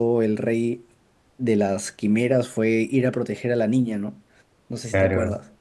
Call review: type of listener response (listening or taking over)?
taking over